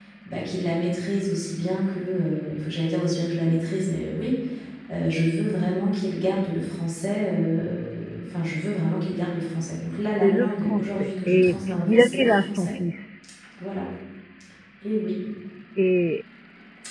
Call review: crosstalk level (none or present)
present